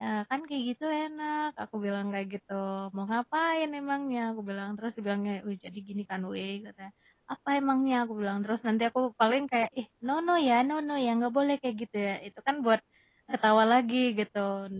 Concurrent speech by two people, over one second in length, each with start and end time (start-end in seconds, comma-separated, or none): none